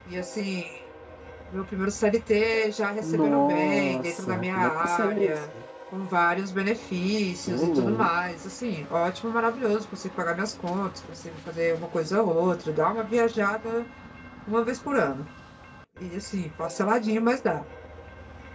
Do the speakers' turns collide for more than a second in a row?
Yes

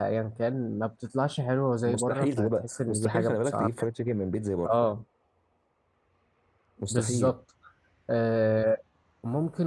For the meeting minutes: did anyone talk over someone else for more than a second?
Yes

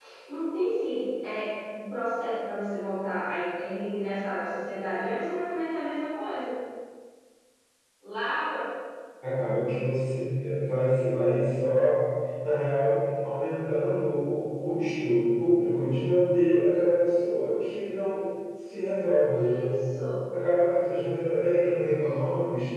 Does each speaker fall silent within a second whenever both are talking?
Yes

